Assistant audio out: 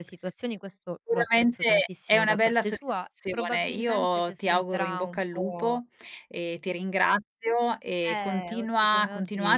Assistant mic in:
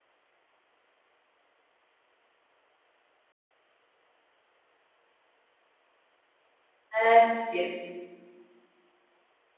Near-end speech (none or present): present